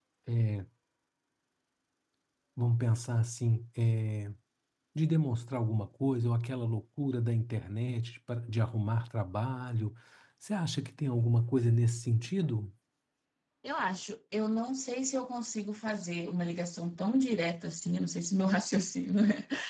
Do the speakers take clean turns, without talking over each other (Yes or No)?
Yes